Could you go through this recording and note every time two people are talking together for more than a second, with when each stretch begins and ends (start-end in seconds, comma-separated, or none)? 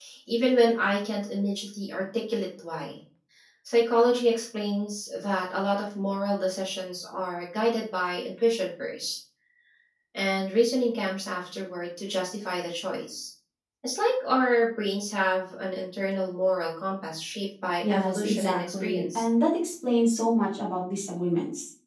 17.8-19.2